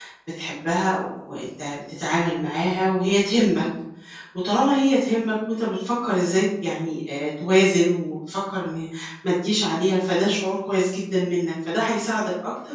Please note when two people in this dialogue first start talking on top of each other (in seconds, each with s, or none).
none